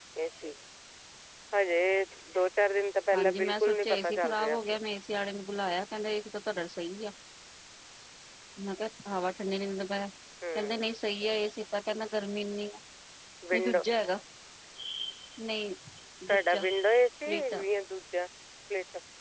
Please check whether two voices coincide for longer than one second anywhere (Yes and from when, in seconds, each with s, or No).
Yes, from 3.1 s